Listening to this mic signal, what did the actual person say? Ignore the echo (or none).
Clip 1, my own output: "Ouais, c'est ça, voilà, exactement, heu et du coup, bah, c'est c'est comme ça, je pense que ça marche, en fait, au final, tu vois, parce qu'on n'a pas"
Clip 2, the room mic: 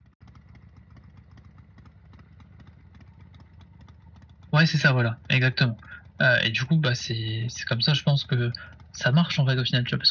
none